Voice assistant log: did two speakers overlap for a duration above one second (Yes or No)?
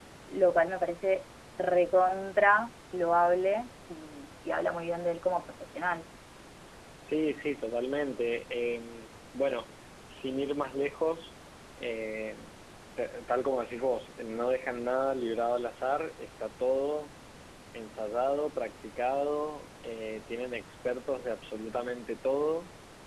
No